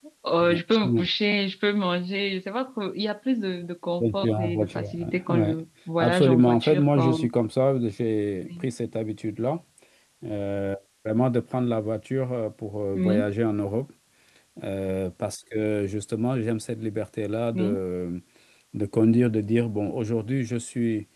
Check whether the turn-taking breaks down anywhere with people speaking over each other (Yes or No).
Yes